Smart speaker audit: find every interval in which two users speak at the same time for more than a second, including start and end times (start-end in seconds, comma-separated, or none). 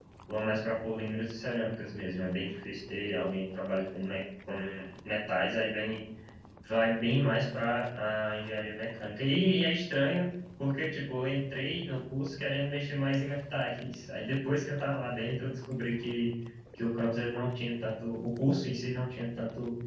none